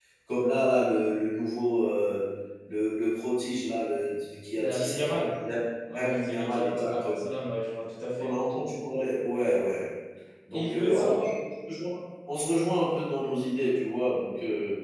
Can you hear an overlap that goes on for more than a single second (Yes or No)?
Yes